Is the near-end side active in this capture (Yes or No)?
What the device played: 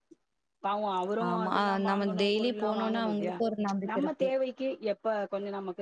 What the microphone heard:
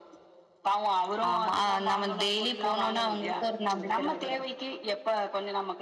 Yes